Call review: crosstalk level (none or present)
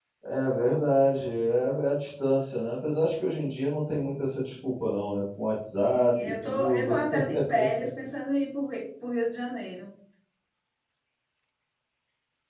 present